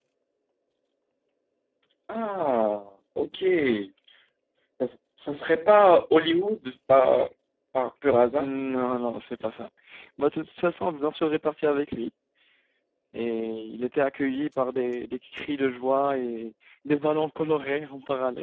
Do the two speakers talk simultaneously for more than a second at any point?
No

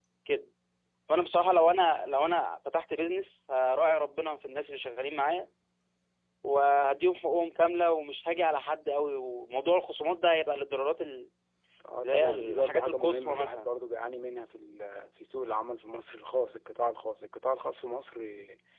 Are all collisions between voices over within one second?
No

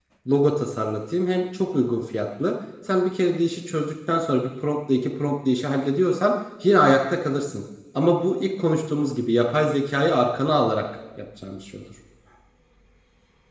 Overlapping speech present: No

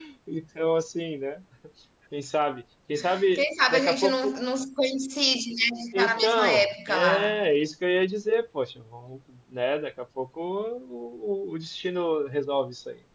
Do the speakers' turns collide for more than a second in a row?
Yes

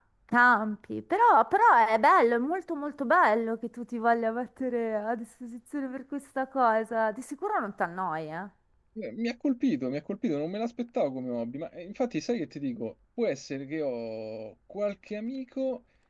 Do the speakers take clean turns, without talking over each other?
Yes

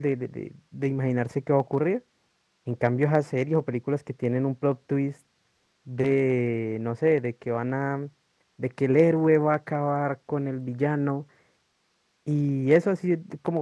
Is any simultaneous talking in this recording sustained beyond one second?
No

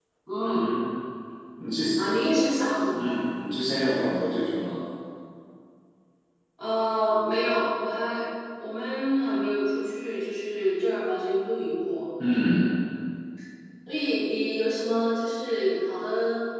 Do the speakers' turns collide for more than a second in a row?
No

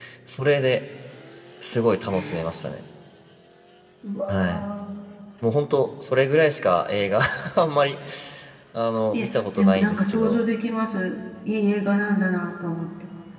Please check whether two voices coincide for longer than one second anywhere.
Yes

